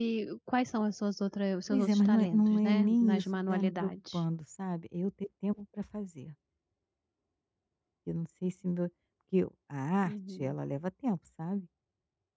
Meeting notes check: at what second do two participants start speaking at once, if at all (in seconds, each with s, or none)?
1.7 s